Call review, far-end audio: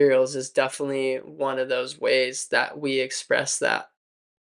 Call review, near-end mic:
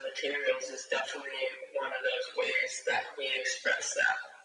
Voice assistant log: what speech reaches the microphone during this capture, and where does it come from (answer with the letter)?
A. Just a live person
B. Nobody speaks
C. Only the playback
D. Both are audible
C